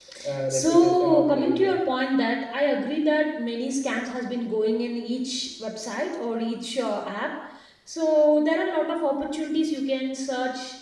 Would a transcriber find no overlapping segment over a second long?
No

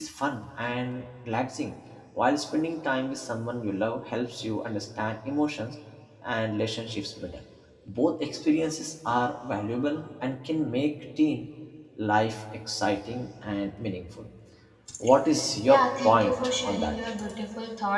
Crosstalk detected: Yes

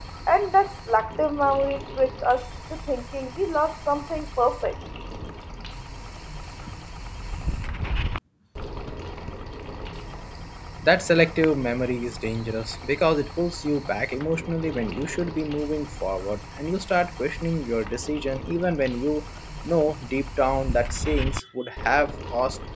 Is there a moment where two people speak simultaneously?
No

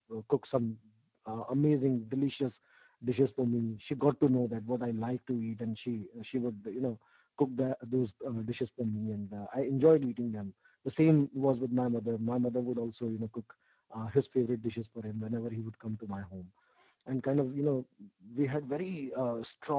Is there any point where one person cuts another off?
No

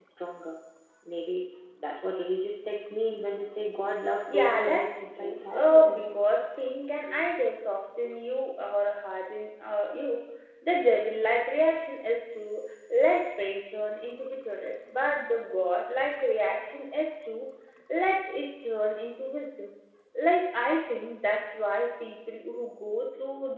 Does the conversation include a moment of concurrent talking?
Yes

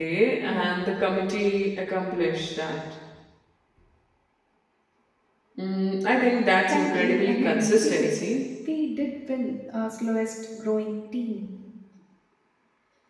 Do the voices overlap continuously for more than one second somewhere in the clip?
Yes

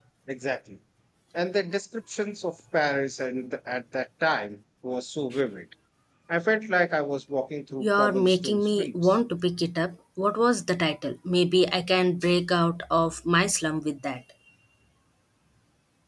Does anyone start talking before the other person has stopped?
Yes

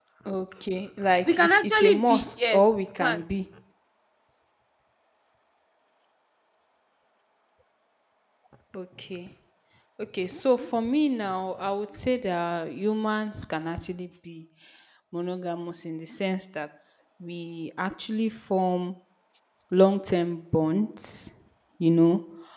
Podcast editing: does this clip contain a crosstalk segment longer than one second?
Yes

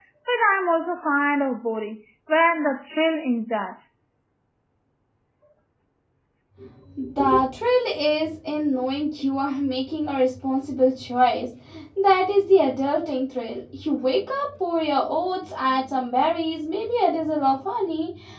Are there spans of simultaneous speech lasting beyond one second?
No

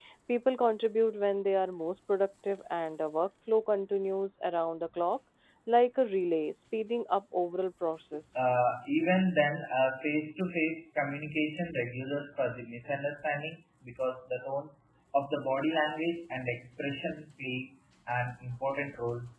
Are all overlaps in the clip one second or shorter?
Yes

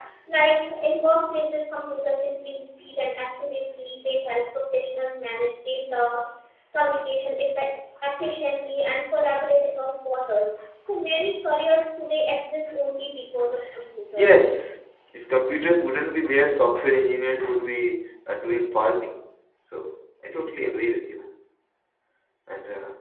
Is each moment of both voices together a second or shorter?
Yes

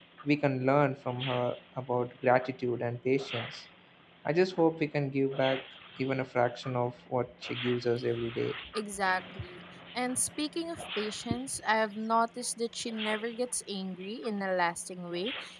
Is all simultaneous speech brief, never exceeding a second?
Yes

